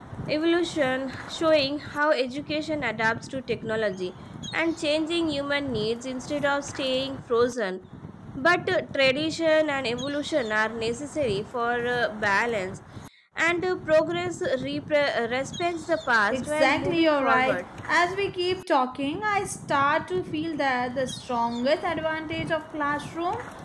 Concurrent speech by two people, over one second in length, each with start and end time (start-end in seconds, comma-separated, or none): 16.3-17.6